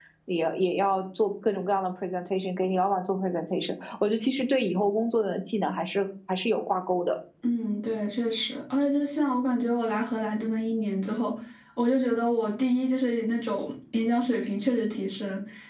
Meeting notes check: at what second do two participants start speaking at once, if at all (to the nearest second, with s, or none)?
none